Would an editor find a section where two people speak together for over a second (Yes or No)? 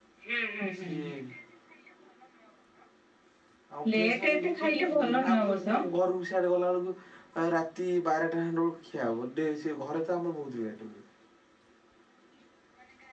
Yes